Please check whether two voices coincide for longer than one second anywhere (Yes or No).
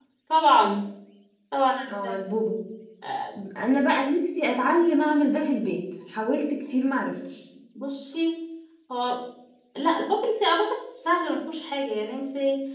No